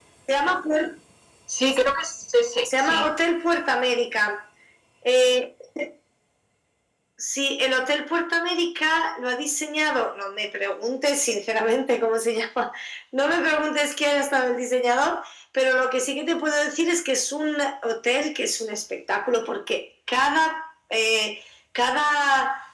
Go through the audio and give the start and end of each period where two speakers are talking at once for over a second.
none

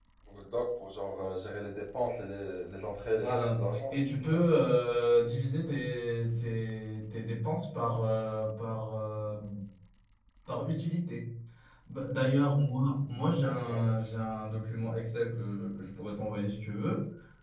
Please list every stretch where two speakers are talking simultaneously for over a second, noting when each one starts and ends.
3.1-4.5

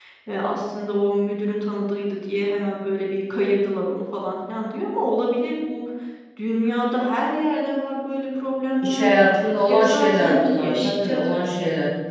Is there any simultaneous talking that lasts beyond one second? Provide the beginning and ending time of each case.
9.7-11.2

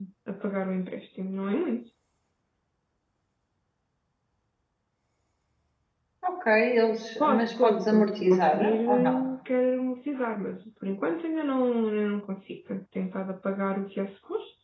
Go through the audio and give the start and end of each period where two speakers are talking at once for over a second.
7.2-9.2

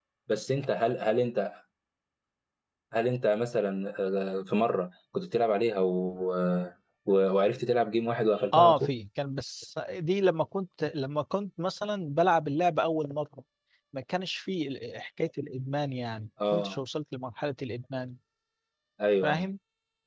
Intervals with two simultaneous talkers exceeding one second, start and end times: none

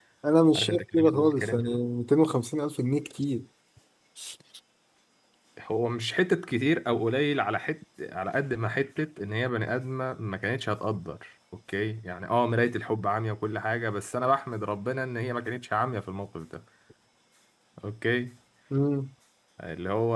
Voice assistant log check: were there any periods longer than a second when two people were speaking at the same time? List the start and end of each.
0.6-1.8

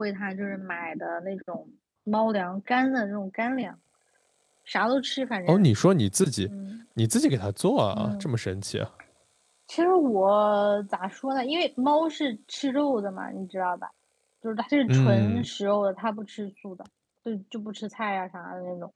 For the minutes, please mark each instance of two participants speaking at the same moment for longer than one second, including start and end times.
none

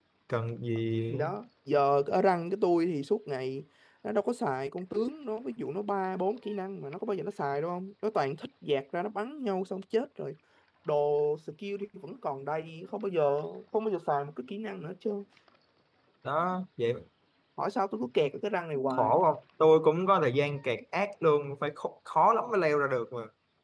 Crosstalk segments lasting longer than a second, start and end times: none

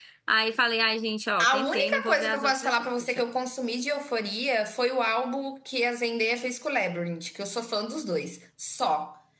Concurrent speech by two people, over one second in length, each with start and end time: 1.4-3.2

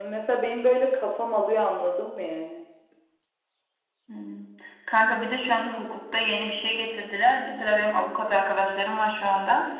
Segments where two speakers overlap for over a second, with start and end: none

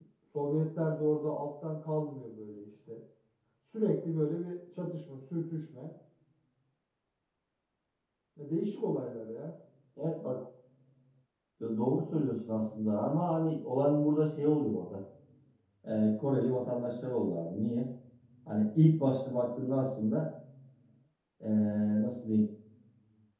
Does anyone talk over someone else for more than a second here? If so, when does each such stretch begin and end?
none

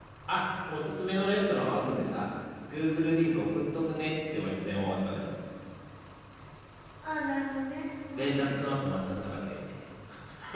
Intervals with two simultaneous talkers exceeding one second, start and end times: none

